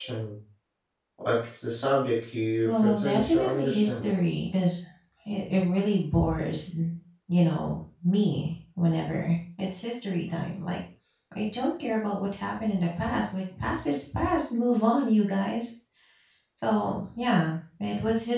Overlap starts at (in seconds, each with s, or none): 2.6 s